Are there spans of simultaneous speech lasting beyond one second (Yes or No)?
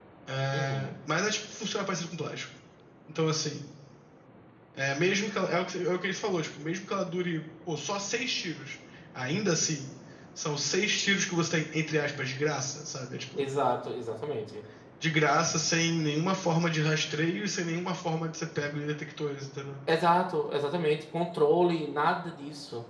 No